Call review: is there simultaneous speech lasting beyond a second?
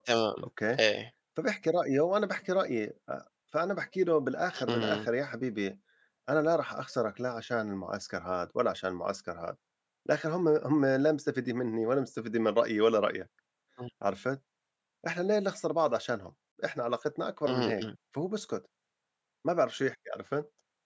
No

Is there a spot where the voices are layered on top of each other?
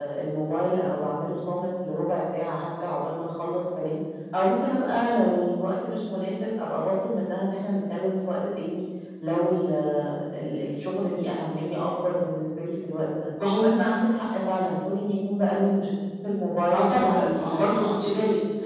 Yes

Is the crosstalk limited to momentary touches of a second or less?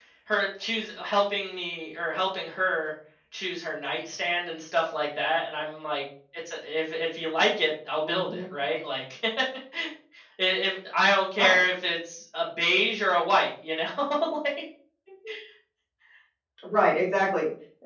Yes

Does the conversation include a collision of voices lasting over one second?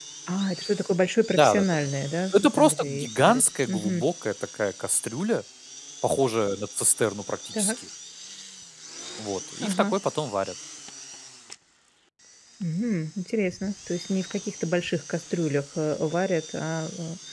Yes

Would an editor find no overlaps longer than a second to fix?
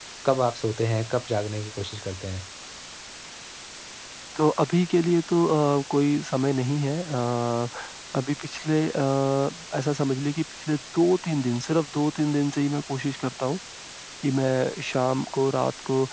Yes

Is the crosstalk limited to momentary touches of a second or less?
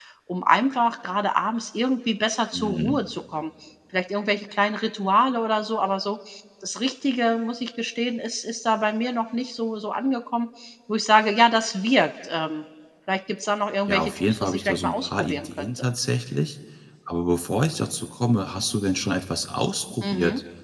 No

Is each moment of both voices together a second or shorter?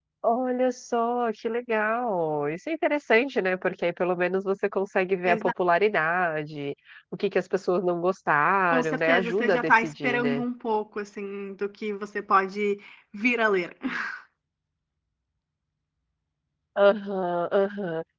No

